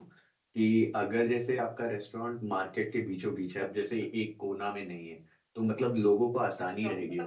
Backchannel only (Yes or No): No